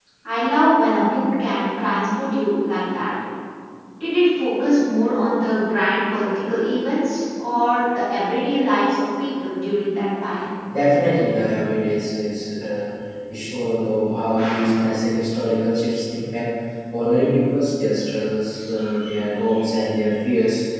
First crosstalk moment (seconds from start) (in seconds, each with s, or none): none